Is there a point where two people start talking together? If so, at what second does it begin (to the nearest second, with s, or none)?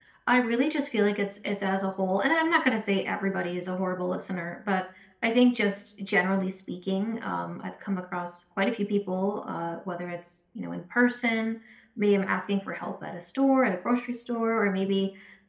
none